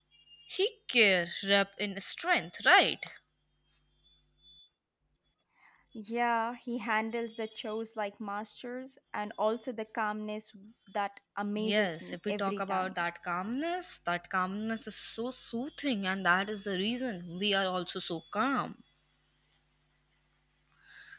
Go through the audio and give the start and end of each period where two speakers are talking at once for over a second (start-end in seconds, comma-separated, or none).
11.6-12.9